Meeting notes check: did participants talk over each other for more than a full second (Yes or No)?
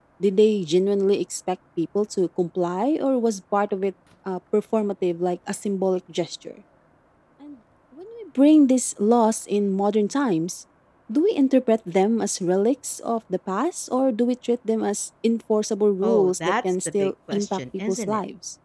Yes